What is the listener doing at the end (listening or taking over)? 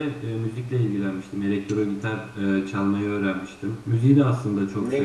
listening